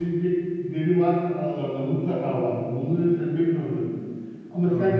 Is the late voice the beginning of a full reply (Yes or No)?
No